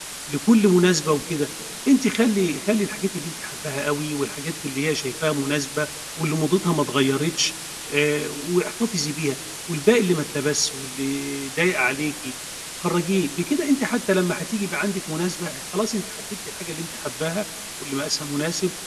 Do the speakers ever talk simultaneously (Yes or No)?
No